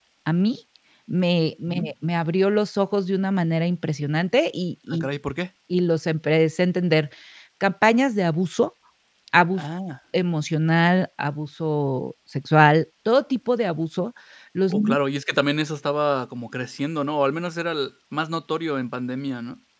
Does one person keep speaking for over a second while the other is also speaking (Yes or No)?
No